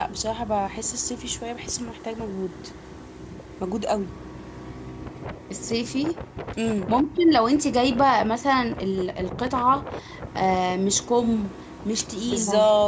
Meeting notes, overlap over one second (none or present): none